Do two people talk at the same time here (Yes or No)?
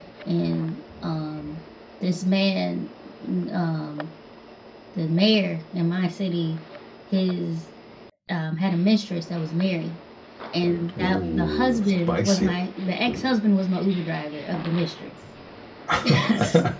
Yes